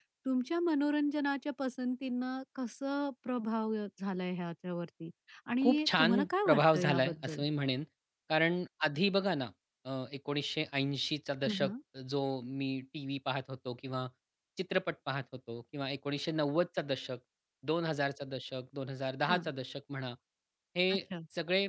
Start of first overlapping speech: 5.6 s

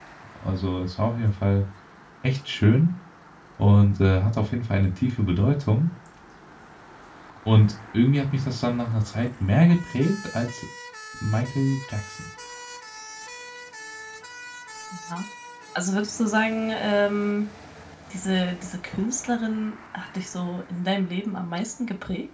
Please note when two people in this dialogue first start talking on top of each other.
none

